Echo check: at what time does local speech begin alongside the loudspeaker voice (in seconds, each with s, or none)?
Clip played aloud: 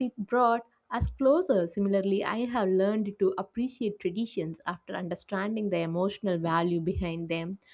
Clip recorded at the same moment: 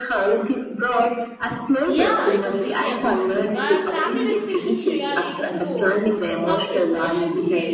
1.8 s